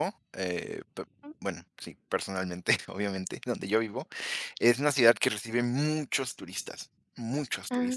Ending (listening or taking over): listening